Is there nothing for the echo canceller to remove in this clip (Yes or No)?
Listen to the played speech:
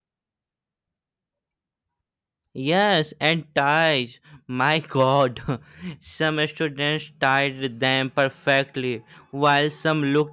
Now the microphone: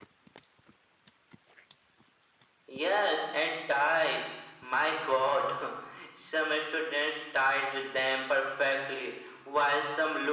No